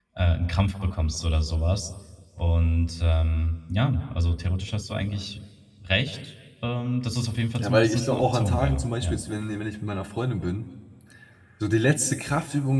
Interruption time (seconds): 7.5 s

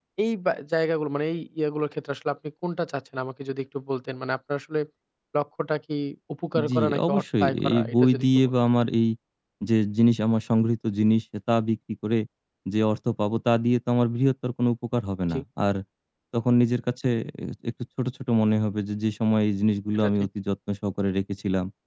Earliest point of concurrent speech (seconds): 6.7 s

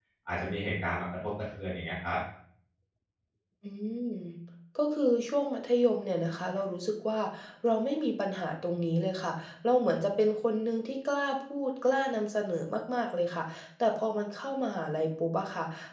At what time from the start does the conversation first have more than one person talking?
none

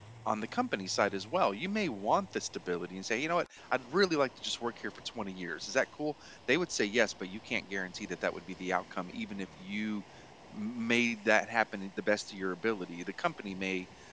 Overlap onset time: none

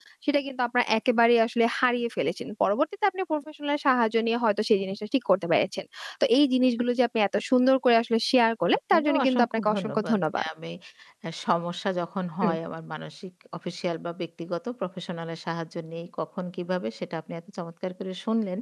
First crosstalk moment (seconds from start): 8.9 s

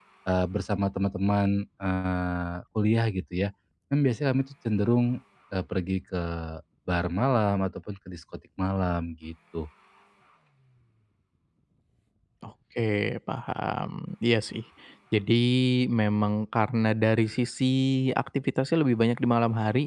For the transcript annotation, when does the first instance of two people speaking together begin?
none

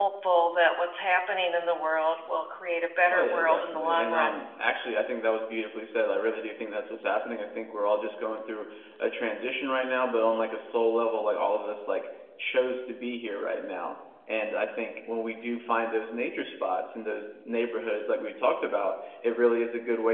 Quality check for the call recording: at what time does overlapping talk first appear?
3.1 s

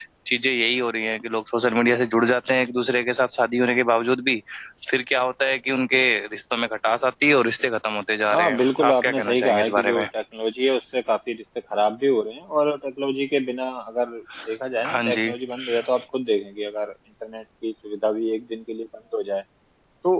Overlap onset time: 8.3 s

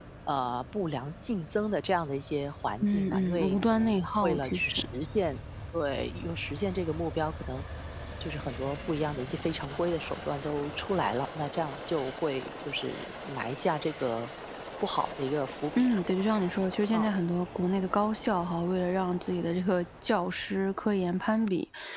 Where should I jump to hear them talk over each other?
2.8 s

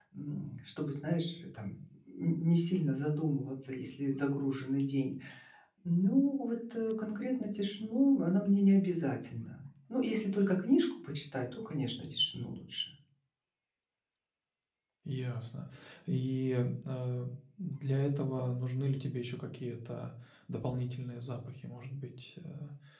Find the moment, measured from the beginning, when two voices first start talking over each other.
none

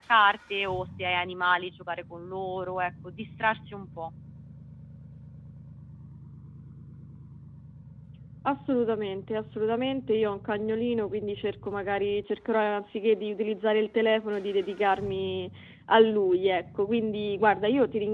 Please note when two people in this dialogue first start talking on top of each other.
none

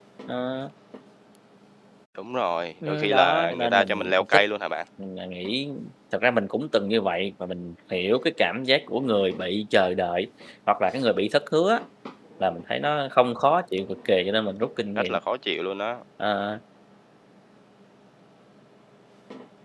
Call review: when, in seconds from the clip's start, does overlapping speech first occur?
2.9 s

